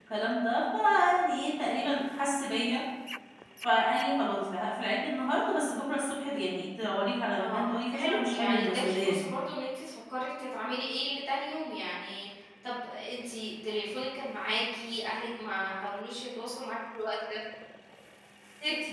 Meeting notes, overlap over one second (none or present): present